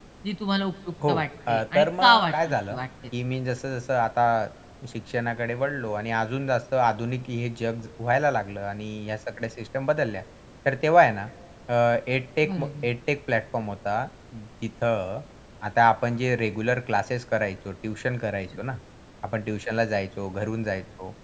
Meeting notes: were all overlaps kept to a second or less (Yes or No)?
No